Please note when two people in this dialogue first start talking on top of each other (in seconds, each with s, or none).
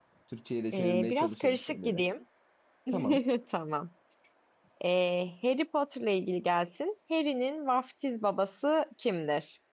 0.7 s